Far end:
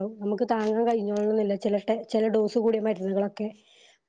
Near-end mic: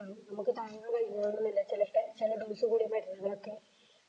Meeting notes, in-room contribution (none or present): none